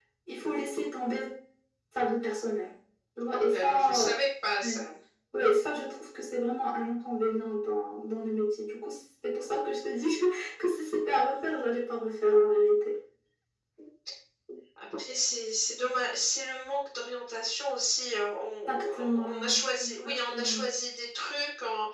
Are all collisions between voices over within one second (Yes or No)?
No